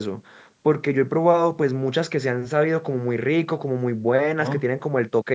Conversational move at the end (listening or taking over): listening